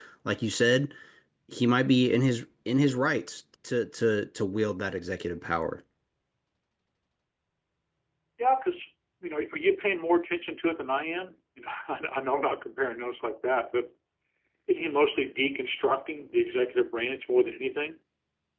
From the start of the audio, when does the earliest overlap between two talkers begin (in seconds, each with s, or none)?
none